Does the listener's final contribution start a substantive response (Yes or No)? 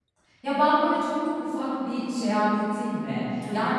No